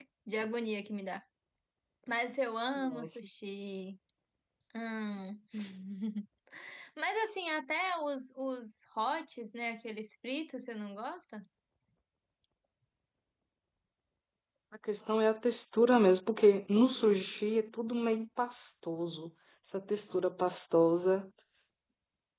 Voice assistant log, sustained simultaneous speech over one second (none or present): none